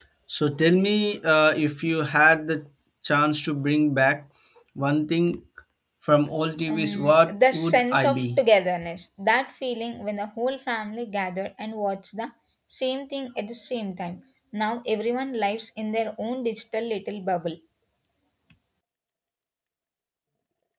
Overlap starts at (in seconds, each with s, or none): 6.7 s